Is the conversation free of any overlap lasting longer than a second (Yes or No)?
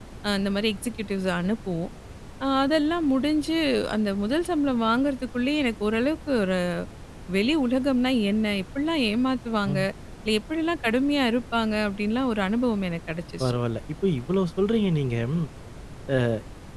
Yes